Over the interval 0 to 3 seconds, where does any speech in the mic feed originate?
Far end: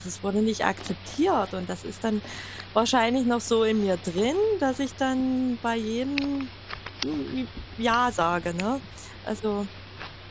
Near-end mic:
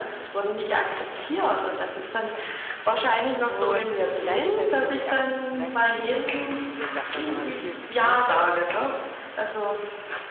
echo only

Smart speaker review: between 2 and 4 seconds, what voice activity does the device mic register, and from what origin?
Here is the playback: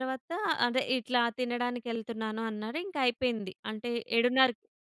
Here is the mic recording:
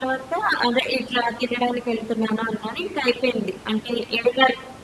echo only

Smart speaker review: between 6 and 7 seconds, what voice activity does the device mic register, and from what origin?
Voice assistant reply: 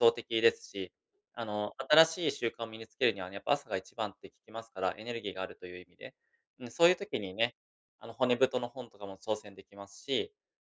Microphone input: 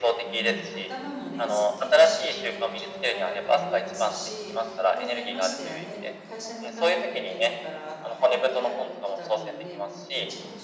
both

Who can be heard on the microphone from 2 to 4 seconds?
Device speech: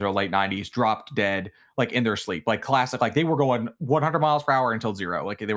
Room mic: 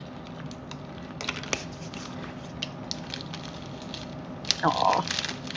neither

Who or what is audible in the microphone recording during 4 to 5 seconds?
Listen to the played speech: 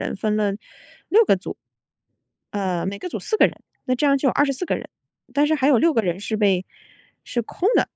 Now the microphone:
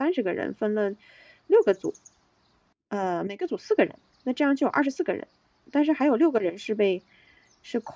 echo only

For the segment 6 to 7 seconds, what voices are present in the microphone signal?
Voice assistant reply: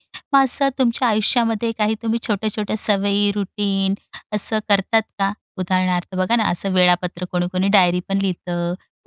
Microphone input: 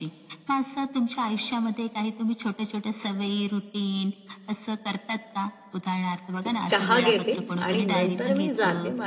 both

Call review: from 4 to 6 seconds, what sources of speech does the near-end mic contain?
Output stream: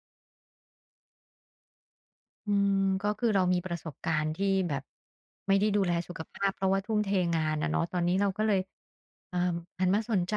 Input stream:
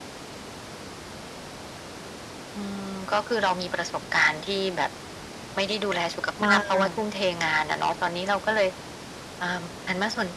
echo only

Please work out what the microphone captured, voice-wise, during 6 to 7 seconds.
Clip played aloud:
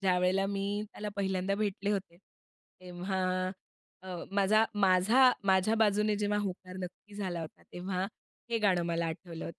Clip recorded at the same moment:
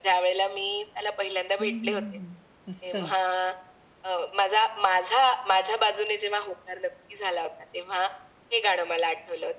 echo only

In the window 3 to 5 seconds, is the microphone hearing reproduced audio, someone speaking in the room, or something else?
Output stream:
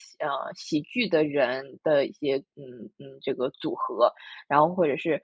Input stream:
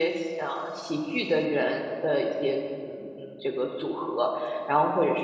echo only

